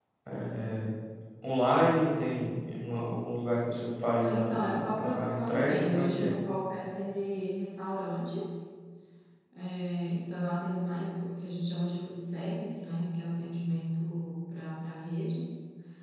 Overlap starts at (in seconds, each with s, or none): 4.2 s